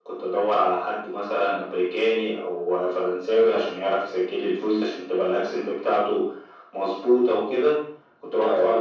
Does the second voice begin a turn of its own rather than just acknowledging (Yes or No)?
No